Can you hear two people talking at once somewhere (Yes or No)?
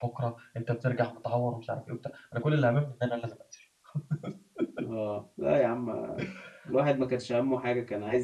No